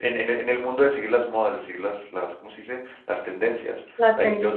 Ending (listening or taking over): listening